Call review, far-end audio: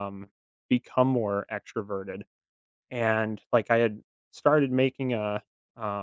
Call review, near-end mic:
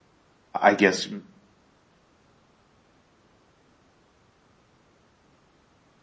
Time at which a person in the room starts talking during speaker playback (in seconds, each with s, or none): 0.6 s